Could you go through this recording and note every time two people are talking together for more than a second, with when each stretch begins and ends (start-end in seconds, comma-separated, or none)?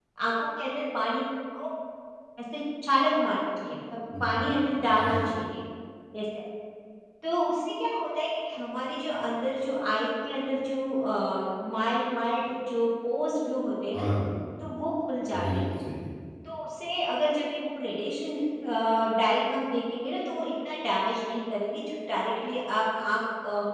none